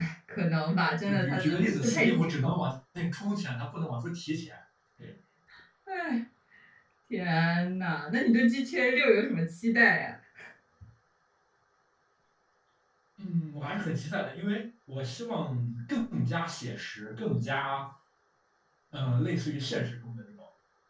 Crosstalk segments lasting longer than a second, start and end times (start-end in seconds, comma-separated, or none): 1.1-2.6